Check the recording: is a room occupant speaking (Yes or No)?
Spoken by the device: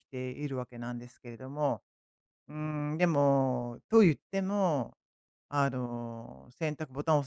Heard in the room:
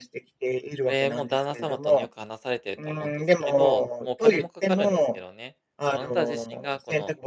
Yes